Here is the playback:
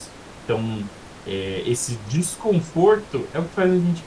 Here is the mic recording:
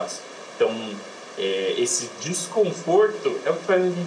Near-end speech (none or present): none